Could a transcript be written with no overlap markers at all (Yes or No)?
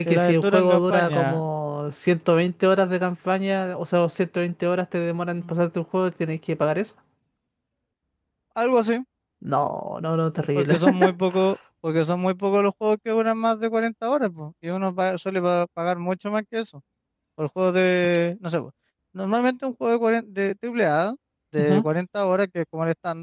No